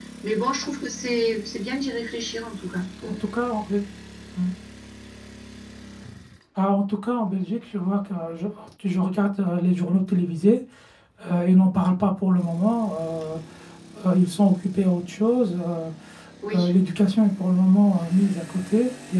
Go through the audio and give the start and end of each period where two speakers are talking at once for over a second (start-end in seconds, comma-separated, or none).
none